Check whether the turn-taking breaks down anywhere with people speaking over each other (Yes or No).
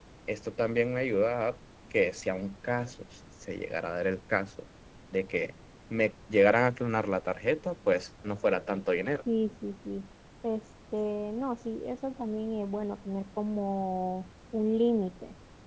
No